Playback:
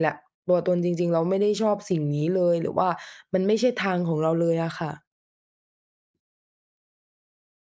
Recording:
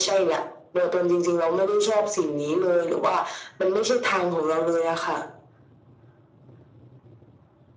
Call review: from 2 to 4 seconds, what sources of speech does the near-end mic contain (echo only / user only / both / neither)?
echo only